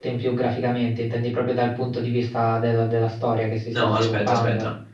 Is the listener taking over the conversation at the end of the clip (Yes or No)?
Yes